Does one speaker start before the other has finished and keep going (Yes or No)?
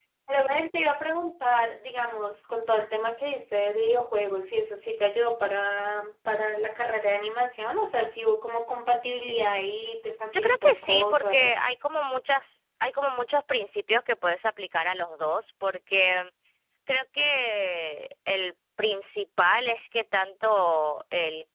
Yes